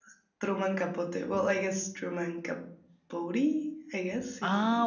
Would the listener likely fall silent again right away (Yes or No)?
No